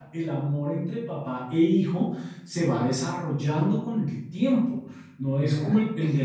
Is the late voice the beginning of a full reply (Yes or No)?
No